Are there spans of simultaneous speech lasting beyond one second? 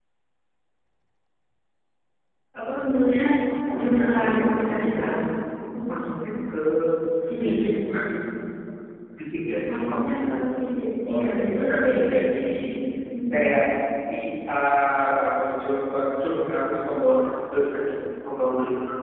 Yes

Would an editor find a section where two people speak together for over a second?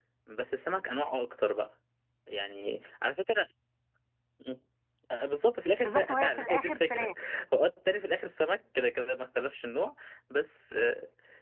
Yes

